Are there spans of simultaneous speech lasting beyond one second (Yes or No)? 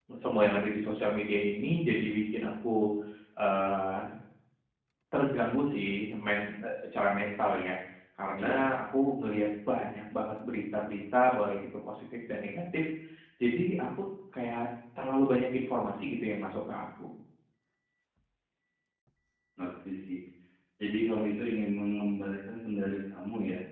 No